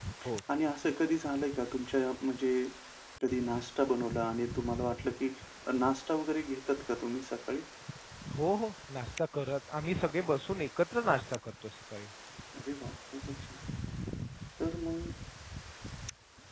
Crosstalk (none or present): none